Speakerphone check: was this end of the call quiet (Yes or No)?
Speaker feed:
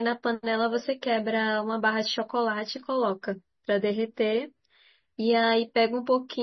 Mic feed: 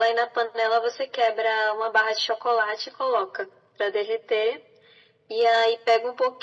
Yes